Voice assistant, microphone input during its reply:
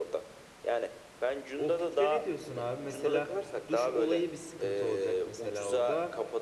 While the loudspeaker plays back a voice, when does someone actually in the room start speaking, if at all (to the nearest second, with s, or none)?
2 s